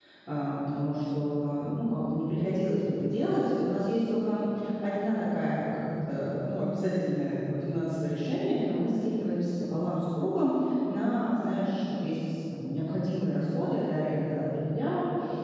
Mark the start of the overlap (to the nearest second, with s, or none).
none